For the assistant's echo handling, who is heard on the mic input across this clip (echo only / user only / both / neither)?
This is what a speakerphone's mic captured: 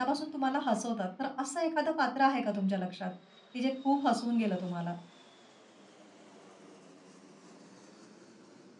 user only